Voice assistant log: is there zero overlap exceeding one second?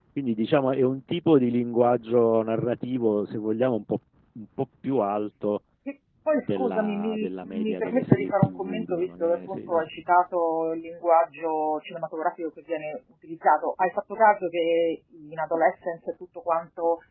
No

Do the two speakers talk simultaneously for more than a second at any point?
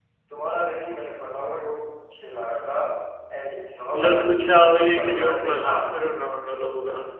Yes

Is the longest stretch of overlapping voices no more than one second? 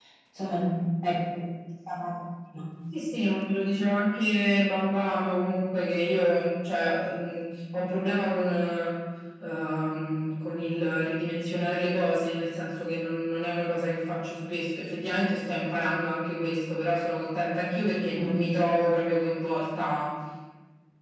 Yes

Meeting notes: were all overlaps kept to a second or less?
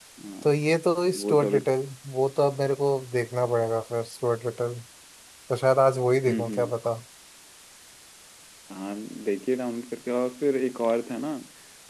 Yes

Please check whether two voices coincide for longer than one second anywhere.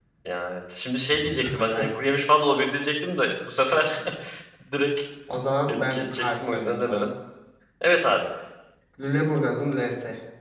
Yes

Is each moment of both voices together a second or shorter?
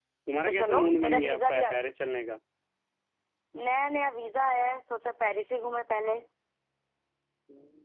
No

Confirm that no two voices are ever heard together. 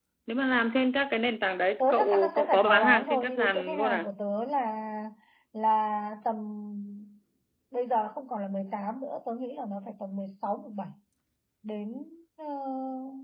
No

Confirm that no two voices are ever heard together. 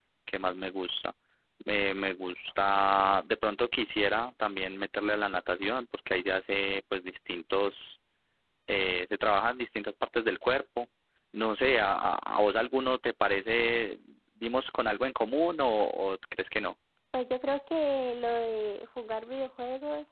Yes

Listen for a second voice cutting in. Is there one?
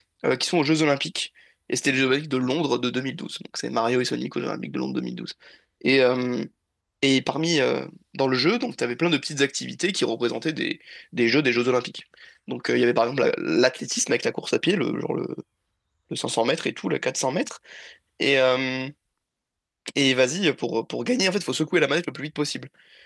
No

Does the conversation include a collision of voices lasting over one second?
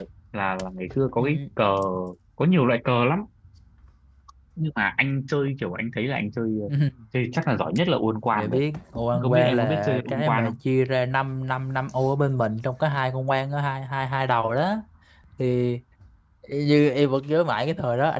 Yes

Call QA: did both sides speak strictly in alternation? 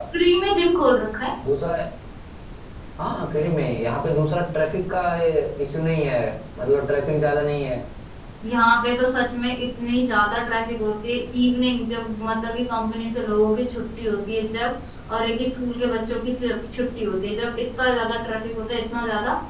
Yes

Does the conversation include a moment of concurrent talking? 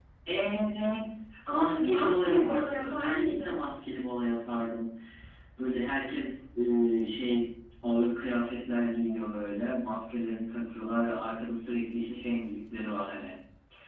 Yes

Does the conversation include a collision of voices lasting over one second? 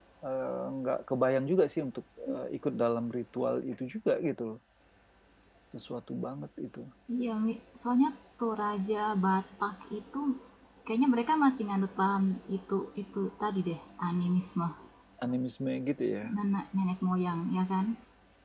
No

